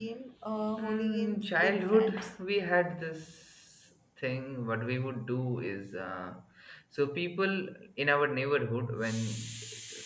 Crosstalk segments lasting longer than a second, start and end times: 0.8-2.2

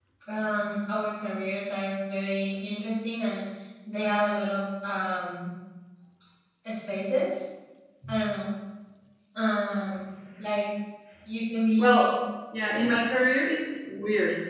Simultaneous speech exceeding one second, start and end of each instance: none

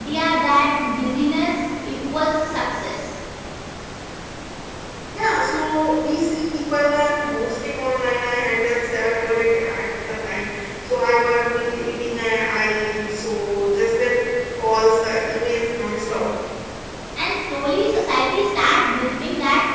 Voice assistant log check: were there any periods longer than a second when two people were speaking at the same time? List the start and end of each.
none

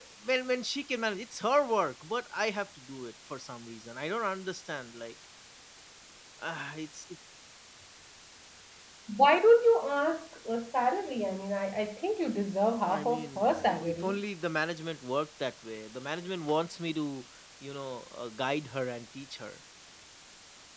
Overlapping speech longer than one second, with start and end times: 12.9-14.2

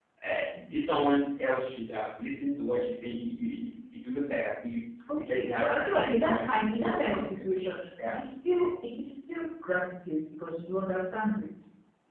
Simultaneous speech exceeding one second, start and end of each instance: 5.2-7.5

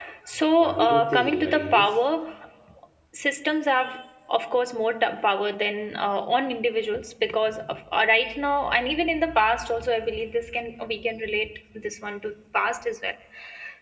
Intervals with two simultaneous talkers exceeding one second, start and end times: 0.6-2.0

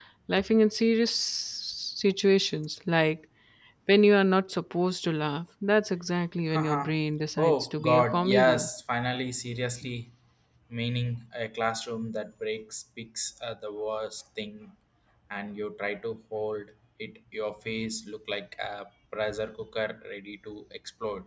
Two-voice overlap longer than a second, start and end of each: 7.4-8.7

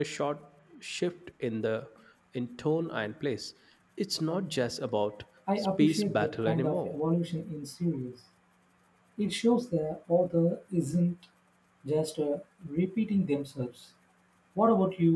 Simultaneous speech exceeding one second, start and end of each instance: 5.6-7.0

